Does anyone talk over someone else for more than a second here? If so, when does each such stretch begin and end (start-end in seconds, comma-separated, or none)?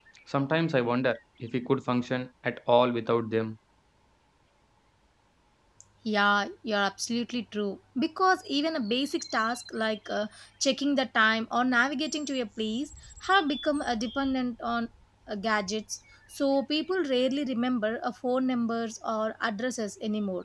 none